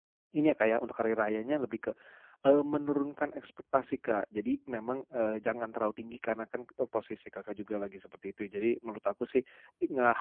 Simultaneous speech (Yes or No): No